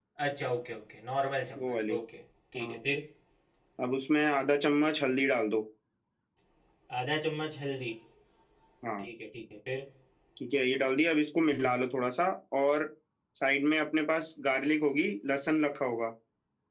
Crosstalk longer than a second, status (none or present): none